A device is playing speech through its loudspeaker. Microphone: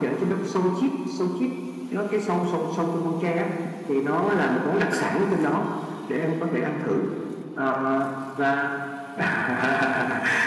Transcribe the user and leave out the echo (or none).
none